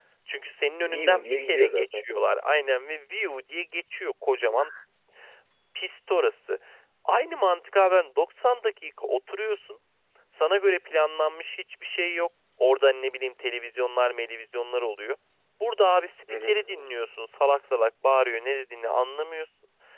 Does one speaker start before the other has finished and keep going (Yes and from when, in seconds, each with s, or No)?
Yes, from 0.8 s